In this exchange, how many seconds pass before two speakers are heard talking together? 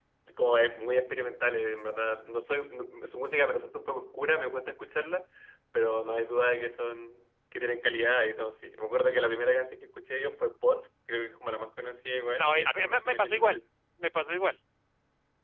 12.3 s

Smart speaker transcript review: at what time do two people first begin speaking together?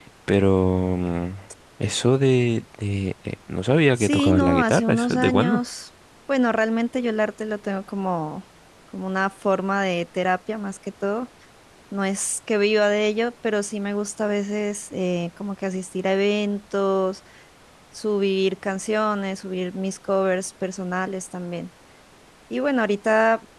4.0 s

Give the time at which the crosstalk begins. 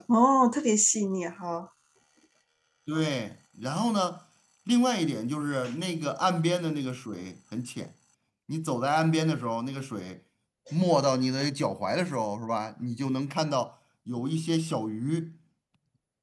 none

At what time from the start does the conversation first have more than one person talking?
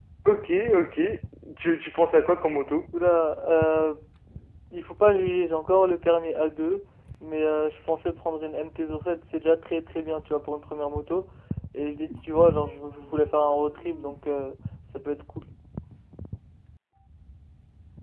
none

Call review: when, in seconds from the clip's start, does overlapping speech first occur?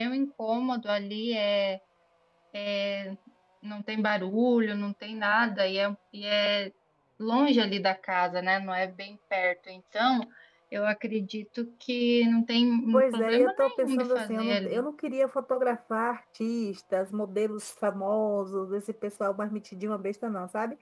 12.9 s

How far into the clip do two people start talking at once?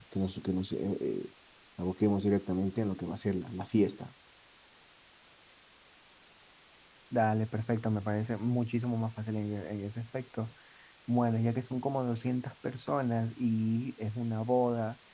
none

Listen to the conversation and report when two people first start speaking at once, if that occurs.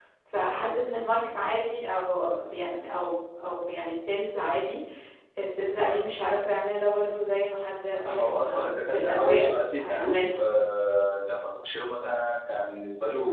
8.0 s

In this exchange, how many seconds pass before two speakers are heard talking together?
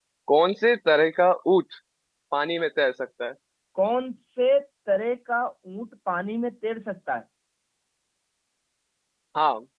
none

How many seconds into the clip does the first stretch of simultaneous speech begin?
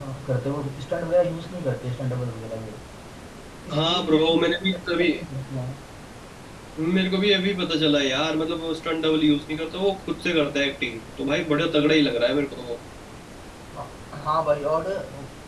3.7 s

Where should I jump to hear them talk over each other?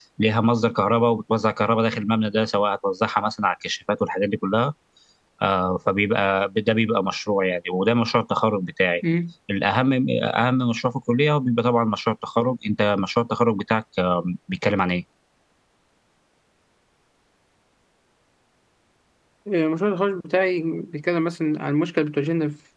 none

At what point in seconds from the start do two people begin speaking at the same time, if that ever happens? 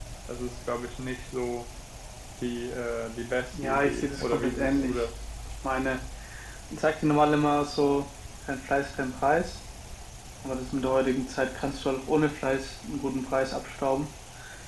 3.5 s

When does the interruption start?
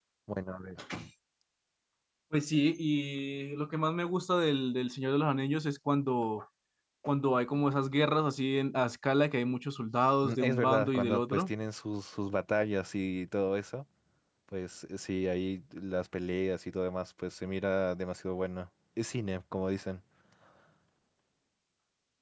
10.2 s

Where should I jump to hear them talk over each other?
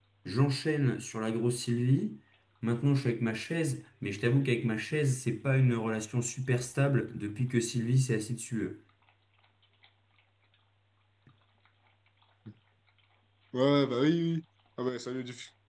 none

